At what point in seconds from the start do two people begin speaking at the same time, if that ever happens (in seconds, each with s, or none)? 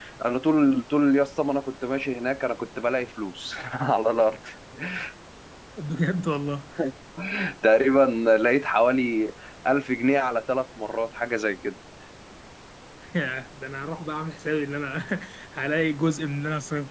none